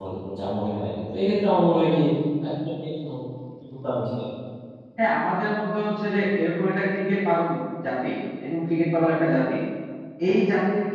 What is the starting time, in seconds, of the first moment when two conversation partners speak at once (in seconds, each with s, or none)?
none